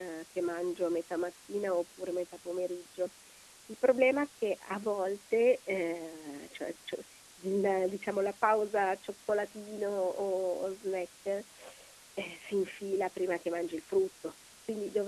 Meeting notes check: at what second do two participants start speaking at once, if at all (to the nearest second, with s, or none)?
none